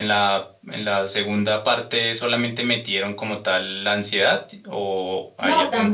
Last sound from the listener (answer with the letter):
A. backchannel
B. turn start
B